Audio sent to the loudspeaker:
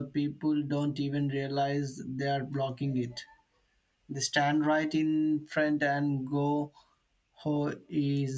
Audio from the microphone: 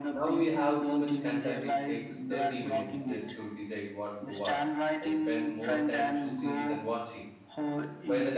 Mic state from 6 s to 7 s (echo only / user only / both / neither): both